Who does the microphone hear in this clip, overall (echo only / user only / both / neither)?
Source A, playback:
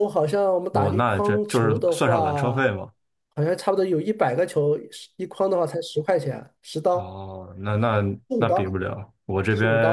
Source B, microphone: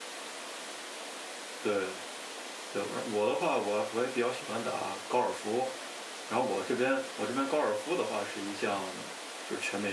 user only